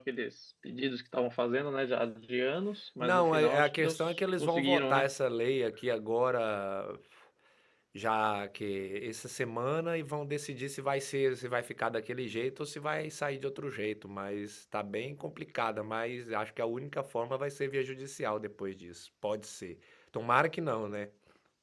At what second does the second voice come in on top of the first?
3 s

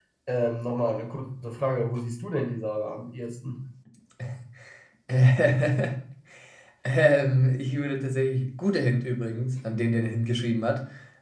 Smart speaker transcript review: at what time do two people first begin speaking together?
none

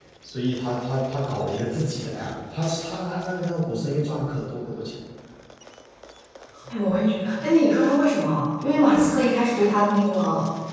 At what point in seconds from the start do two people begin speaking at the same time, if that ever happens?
none

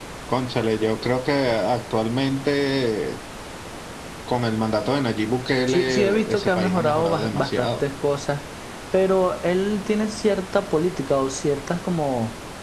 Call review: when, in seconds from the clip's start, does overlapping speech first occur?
6 s

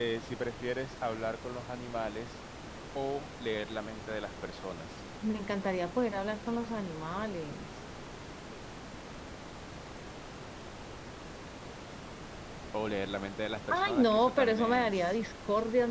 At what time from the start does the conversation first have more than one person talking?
14 s

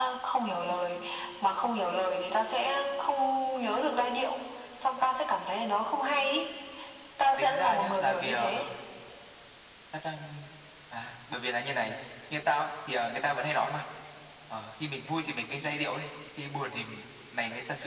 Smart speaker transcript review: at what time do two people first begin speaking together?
7 s

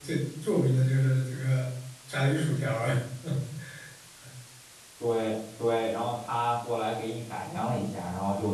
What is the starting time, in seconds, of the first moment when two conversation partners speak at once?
none

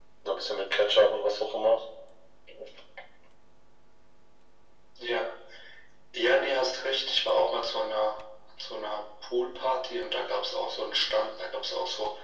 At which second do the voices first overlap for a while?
none

